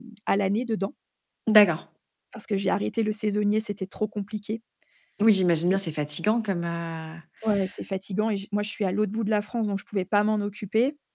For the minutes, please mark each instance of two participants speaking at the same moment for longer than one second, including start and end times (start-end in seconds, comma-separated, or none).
none